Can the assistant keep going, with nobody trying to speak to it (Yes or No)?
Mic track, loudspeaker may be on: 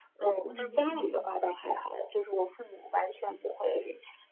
No